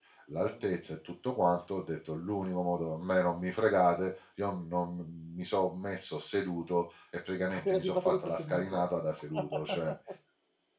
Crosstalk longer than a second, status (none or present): present